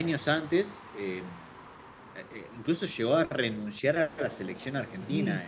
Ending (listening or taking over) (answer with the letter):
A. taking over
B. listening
B